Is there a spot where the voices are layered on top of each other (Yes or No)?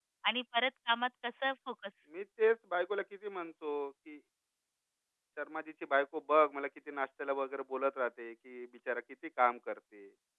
No